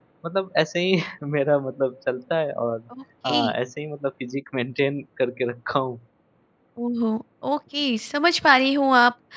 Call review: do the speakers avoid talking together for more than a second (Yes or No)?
Yes